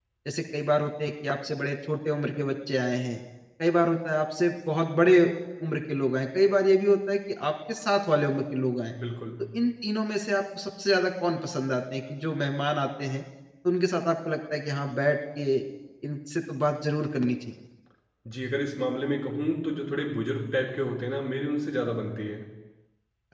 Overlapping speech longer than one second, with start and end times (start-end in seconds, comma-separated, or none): none